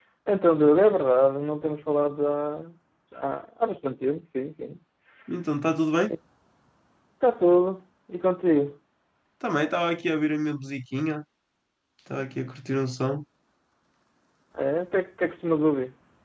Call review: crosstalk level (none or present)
none